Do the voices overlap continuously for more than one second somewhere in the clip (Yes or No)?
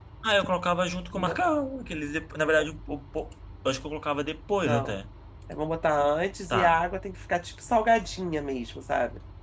No